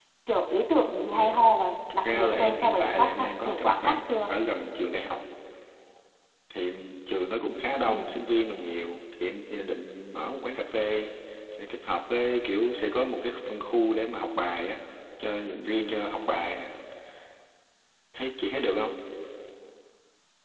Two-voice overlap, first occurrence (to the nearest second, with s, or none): 2 s